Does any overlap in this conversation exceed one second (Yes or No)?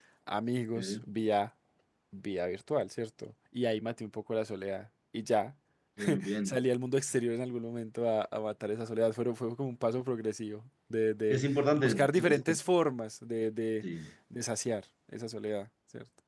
Yes